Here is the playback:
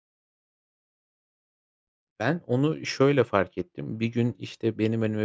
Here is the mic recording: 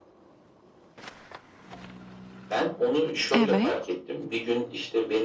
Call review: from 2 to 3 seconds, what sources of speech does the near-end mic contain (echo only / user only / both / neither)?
echo only